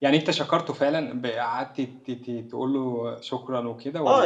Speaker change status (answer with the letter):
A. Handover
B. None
A